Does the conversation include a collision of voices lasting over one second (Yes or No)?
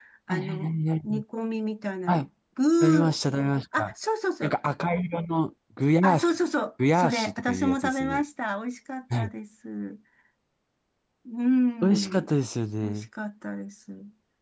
Yes